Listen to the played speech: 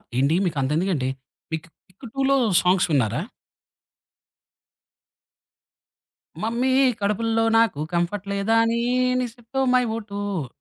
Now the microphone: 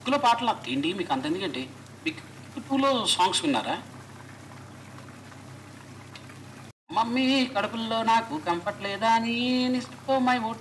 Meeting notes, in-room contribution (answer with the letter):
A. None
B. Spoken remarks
A